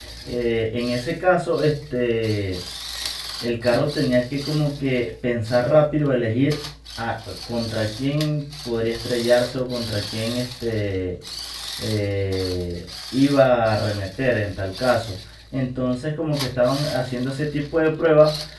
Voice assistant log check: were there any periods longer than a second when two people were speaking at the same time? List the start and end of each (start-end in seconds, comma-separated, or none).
none